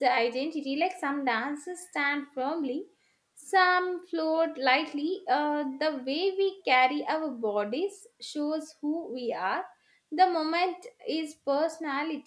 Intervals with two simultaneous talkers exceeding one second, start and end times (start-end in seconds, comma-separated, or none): none